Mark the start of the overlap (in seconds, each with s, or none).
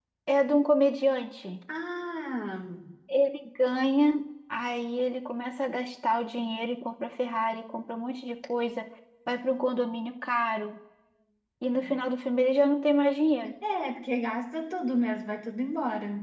none